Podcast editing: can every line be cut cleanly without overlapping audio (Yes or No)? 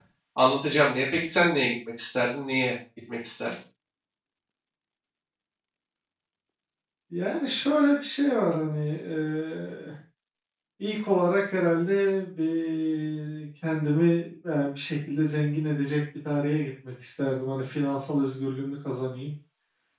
Yes